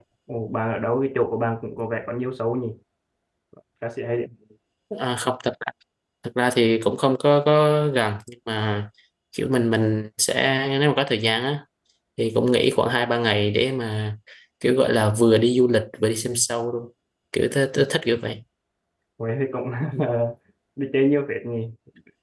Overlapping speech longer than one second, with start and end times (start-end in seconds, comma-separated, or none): none